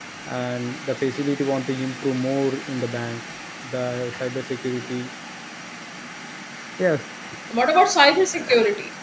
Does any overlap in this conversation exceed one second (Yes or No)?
No